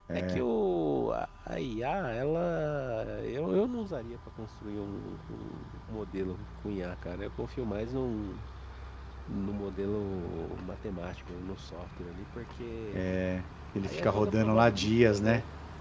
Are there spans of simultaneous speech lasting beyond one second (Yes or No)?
Yes